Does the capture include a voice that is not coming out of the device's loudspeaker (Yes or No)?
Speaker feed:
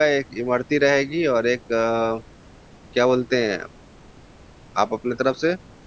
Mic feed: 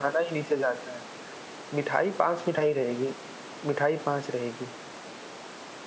Yes